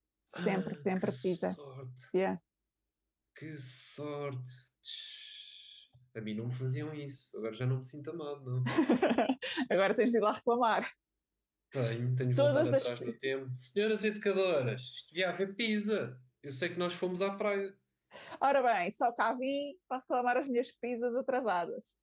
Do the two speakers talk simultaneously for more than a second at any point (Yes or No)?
Yes